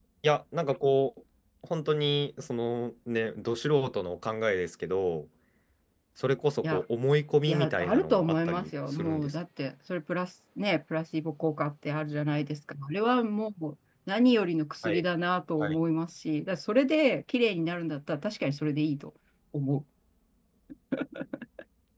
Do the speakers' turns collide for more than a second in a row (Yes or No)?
Yes